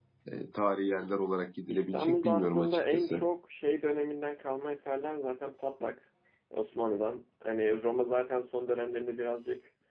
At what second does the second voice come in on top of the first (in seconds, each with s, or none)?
1.7 s